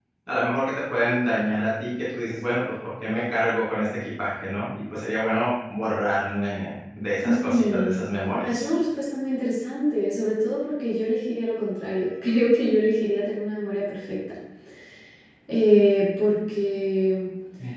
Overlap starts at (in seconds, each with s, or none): 7.2 s